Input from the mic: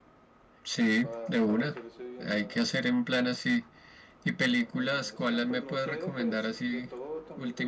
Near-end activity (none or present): present